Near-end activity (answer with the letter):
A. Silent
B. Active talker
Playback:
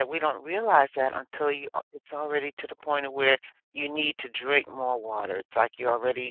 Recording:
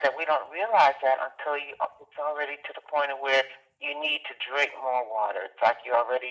A